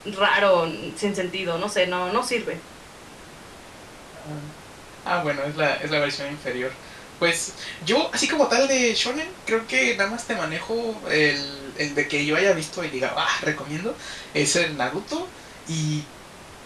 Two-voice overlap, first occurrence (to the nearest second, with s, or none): none